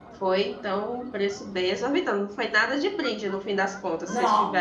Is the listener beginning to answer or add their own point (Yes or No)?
Yes